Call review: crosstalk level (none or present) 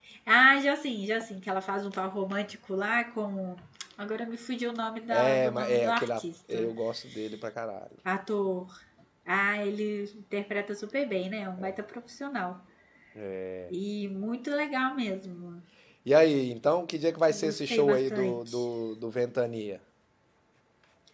present